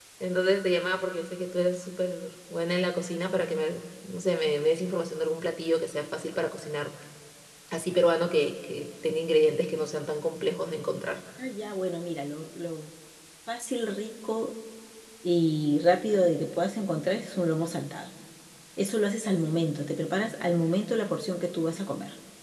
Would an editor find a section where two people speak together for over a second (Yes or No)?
No